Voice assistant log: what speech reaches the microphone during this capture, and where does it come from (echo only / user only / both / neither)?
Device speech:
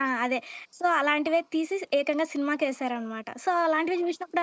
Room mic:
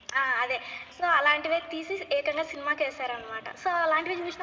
echo only